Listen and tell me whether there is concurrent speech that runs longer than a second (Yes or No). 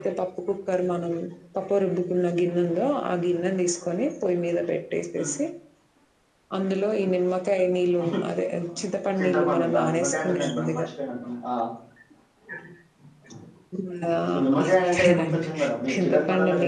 Yes